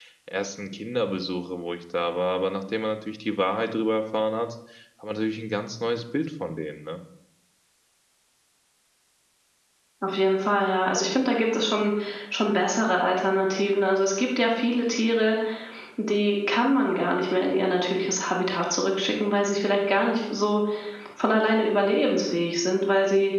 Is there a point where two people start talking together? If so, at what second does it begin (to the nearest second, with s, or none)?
none